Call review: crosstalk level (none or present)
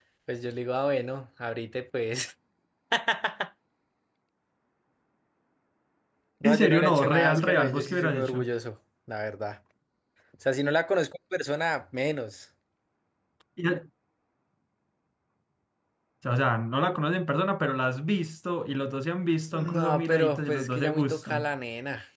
present